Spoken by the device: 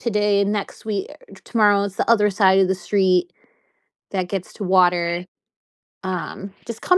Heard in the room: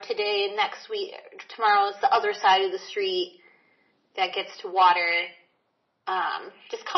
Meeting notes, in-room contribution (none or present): none